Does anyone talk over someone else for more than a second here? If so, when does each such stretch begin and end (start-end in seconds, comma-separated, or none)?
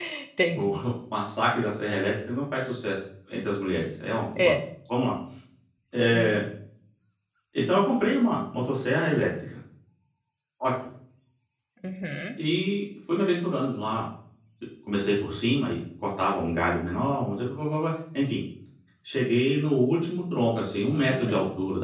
none